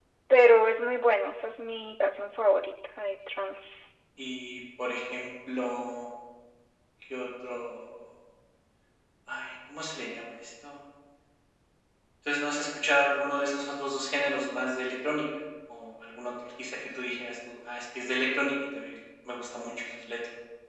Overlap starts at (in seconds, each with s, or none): none